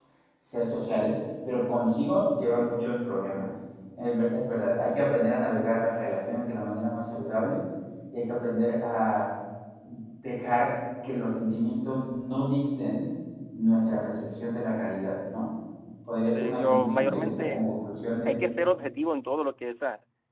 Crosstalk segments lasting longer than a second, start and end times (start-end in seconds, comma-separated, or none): 16.3-17.7